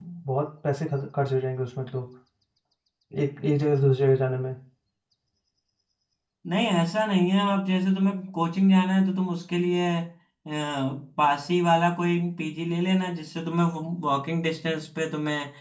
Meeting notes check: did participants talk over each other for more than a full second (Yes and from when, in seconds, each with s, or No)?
No